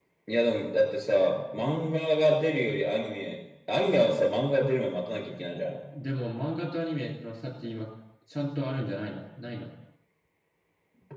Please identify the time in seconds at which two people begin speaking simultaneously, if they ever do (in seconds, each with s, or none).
none